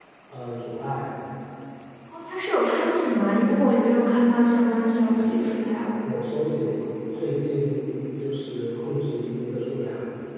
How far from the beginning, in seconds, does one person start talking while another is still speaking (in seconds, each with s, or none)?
none